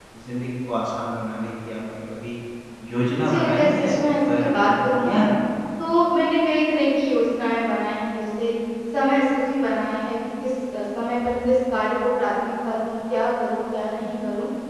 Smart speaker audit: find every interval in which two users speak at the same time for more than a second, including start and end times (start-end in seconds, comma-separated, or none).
3.2-5.2